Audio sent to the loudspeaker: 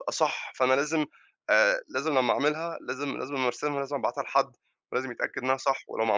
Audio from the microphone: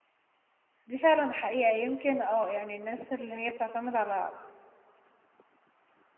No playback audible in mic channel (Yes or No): Yes